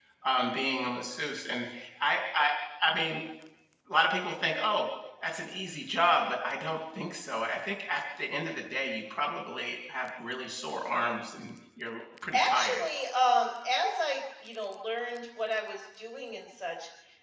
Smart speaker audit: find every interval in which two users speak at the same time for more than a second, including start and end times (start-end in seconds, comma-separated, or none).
none